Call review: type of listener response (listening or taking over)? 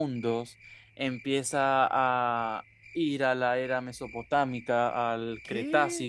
listening